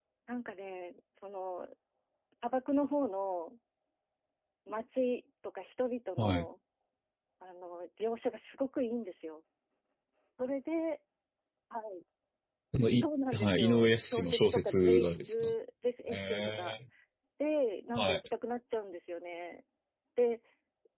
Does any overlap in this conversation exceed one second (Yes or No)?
Yes